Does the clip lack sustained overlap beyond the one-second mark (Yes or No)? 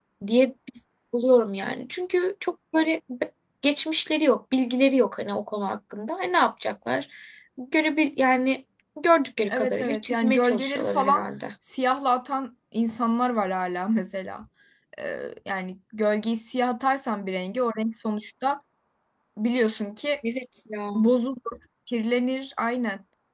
No